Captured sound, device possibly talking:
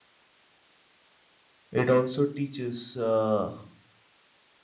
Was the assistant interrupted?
Yes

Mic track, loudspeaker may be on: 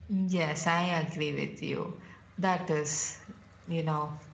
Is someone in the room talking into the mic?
No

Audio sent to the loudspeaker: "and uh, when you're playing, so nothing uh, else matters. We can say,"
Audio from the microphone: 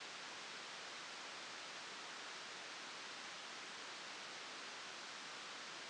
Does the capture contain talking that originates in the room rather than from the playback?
No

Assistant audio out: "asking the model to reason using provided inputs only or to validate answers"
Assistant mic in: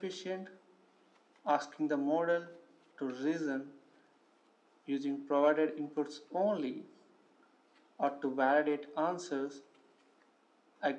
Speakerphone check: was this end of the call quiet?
Yes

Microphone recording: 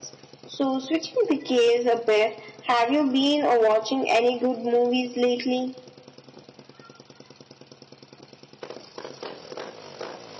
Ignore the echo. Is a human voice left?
No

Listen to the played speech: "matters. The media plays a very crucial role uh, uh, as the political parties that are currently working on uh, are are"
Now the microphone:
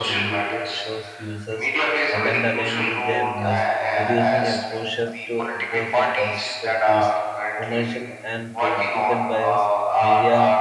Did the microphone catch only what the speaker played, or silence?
No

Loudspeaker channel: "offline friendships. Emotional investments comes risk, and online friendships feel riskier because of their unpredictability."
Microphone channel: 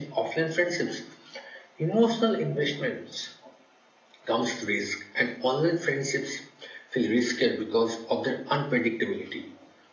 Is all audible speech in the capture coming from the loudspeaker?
Yes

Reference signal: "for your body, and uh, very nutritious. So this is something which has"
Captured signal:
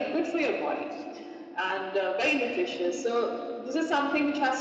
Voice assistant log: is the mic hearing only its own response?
Yes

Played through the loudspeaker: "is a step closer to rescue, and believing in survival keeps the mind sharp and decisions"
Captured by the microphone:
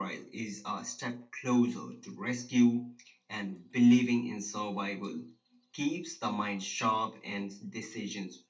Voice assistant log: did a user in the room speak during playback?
No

